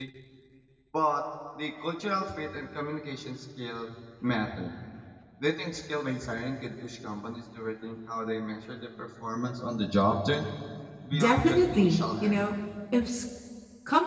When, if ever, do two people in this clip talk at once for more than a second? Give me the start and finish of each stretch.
11.2-12.5

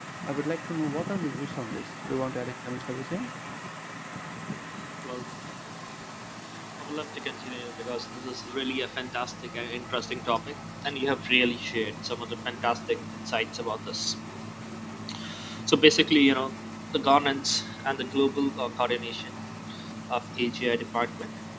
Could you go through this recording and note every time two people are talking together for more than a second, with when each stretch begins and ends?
none

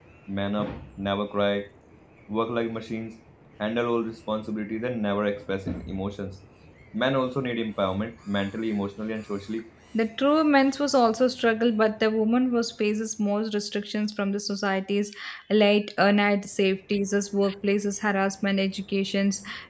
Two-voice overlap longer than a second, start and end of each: none

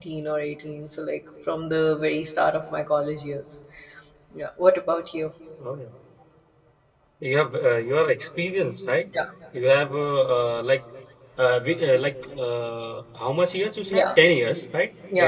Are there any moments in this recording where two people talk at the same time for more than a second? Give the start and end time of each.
none

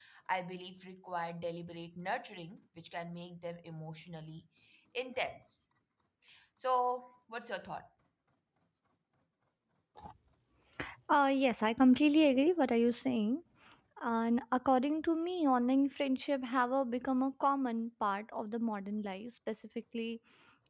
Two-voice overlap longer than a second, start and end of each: none

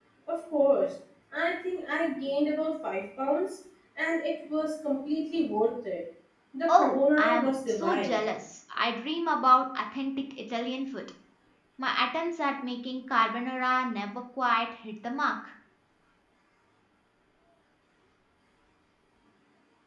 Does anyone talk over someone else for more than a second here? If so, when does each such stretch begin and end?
6.8-8.2

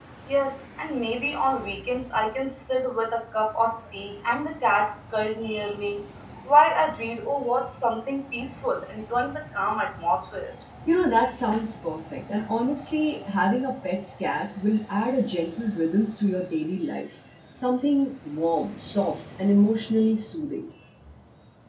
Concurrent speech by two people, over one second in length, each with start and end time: none

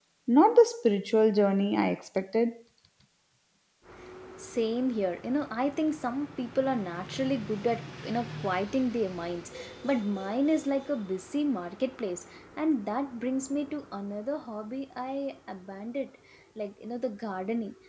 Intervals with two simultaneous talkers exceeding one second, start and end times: none

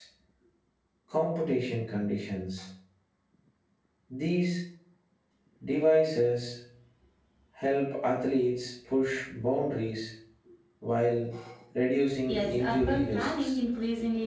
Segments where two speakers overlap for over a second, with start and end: 12.3-13.6

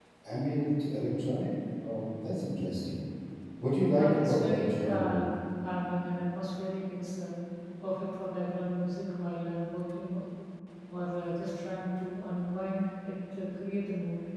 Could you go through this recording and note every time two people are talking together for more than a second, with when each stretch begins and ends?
4.0-5.2

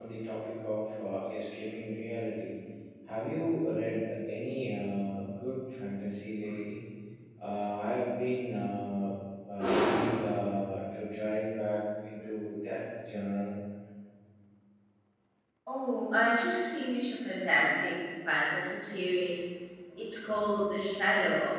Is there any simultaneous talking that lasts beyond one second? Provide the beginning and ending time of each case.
none

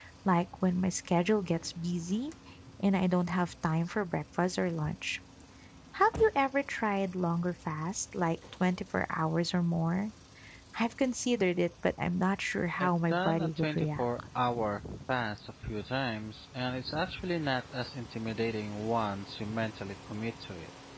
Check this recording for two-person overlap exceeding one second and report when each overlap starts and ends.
12.8-14.1

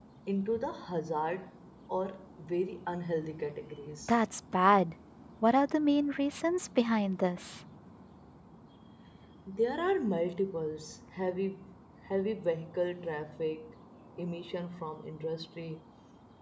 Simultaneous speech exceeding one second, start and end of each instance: none

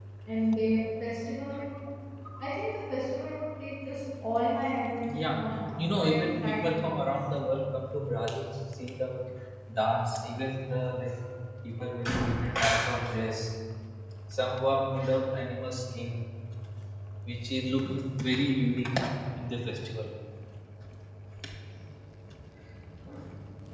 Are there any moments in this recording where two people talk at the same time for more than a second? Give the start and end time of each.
5.1-7.1

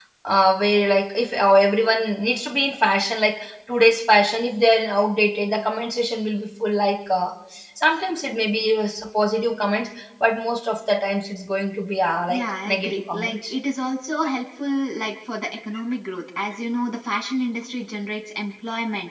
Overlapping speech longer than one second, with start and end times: 12.3-13.5

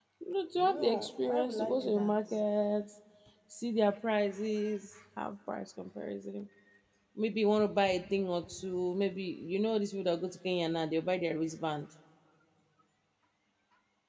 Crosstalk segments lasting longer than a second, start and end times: 0.6-2.1

